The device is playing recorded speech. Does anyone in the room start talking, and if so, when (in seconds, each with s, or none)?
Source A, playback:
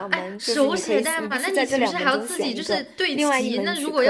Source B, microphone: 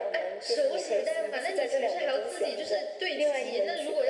none